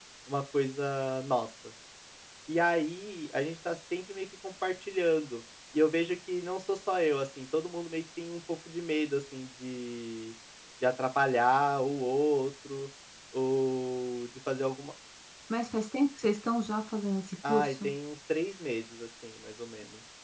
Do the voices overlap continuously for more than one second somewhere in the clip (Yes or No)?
No